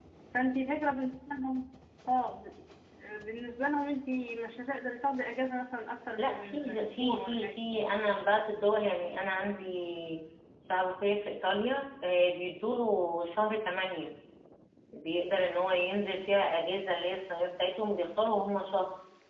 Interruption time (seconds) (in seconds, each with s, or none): 6.2 s